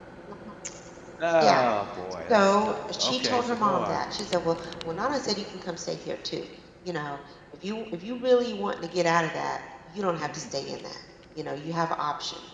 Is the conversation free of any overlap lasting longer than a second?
No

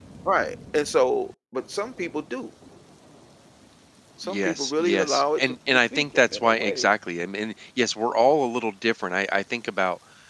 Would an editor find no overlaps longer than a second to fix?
No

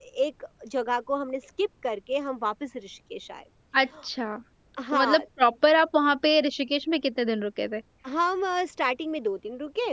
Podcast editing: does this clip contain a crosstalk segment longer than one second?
No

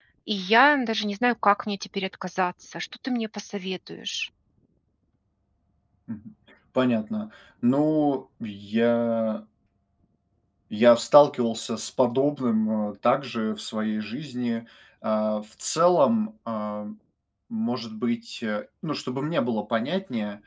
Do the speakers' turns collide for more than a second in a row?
No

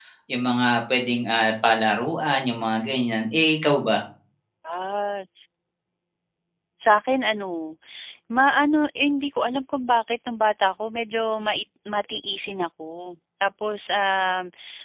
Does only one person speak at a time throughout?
Yes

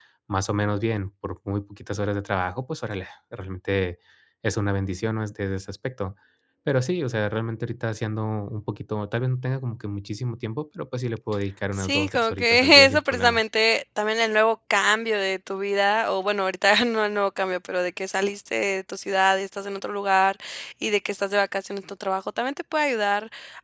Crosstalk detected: Yes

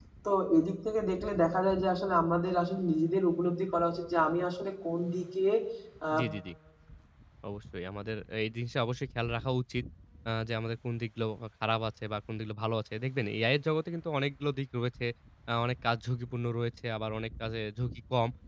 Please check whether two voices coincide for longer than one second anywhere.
No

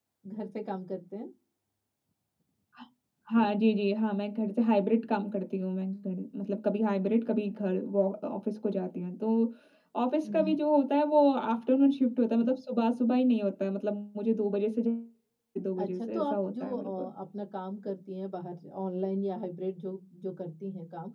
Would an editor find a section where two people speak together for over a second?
Yes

